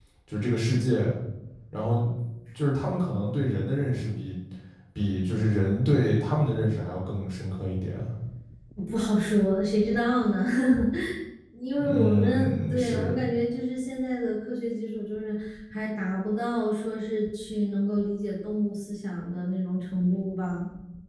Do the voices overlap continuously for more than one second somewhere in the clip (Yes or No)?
Yes